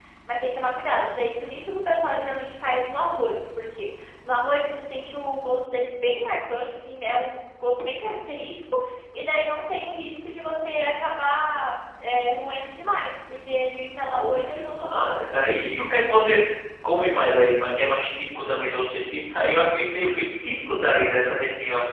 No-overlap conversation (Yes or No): No